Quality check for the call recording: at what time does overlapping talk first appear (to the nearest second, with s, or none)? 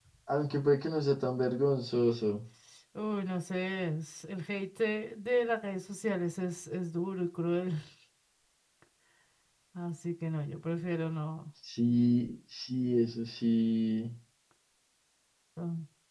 none